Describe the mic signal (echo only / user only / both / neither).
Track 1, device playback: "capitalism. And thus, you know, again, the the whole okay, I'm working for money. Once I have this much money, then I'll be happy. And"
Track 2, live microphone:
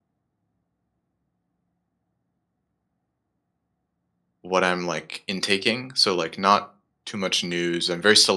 user only